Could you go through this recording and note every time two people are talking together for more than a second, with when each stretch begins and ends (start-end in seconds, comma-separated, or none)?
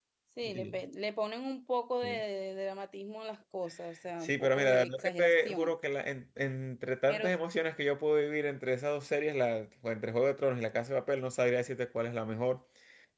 4.2-5.7